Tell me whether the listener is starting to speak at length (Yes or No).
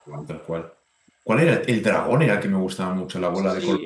Yes